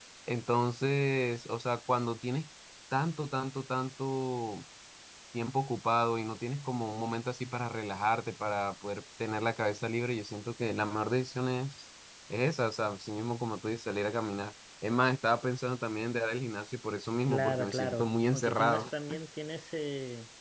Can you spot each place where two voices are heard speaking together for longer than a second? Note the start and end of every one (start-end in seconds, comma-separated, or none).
17.3-18.9